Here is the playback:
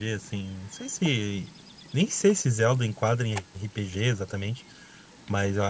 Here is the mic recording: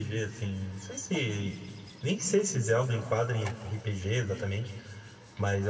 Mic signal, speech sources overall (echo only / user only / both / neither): echo only